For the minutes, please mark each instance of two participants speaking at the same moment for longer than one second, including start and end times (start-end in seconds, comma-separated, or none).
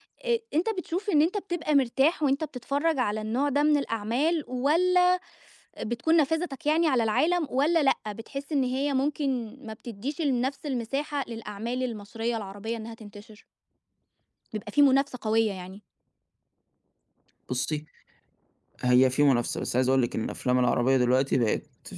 none